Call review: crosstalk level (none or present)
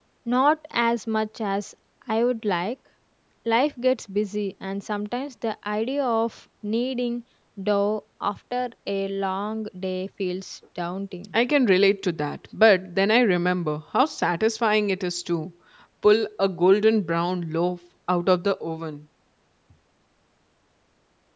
none